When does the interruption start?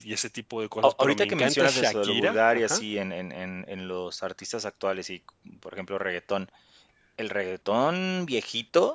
0.8 s

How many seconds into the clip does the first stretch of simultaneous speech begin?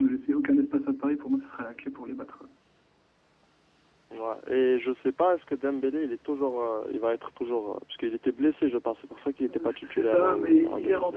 9.5 s

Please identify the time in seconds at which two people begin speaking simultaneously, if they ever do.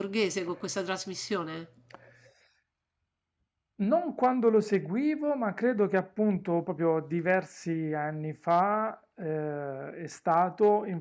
none

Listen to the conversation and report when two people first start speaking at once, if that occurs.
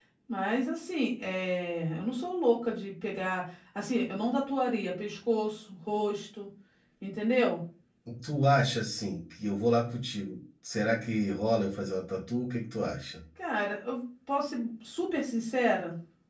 none

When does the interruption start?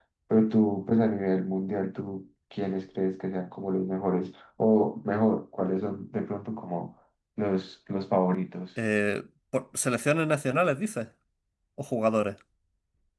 none

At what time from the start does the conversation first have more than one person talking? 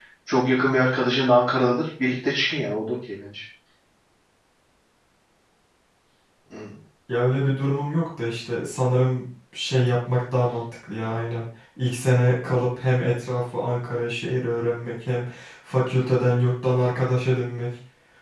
none

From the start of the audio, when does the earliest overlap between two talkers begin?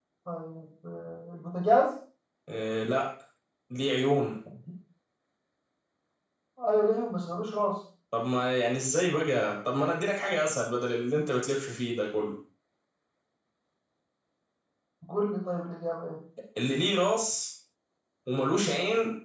none

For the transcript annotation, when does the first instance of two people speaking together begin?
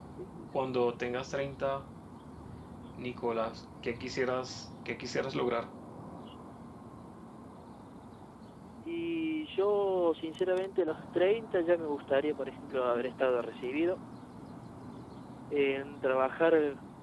none

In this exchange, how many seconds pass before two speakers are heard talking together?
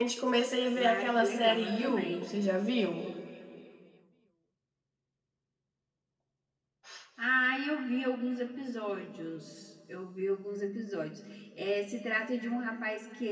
0.9 s

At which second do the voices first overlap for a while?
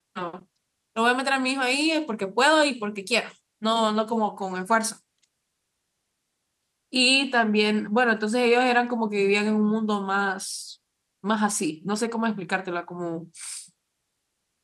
none

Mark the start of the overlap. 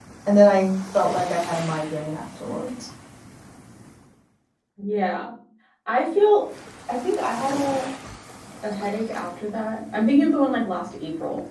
none

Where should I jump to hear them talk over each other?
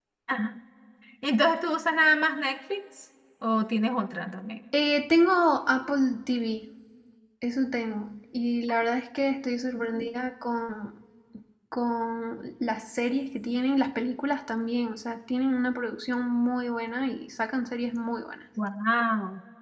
none

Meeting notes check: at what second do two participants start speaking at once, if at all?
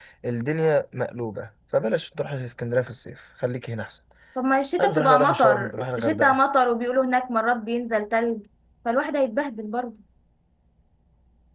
4.8 s

